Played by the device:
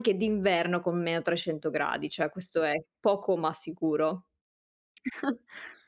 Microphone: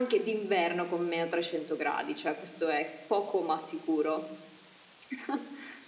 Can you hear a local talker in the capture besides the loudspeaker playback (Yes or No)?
No